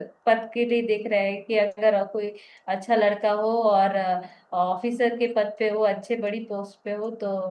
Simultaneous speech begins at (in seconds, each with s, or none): none